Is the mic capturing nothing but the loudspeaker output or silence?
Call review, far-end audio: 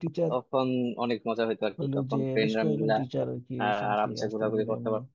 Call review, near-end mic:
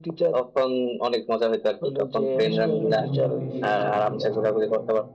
No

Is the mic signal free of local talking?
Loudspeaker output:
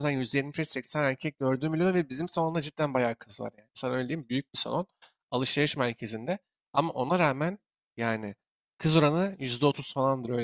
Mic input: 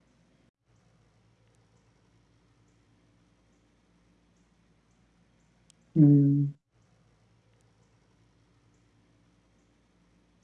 No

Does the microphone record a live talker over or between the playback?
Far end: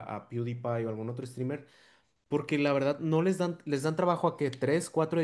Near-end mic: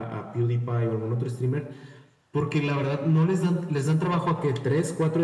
No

